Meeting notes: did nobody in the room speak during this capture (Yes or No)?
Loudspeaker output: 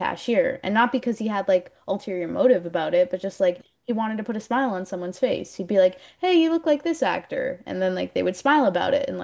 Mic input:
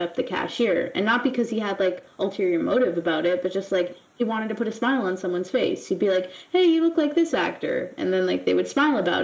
Yes